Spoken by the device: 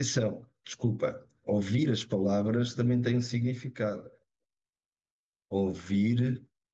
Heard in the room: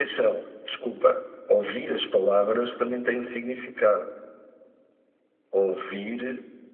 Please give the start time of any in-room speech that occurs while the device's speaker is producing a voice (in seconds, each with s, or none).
none